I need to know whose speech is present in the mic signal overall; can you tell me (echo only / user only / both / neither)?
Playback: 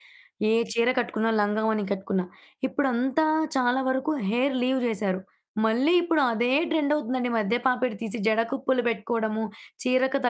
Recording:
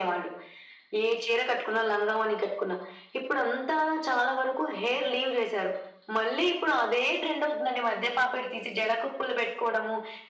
echo only